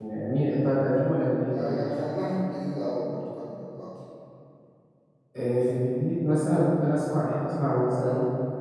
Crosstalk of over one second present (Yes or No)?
No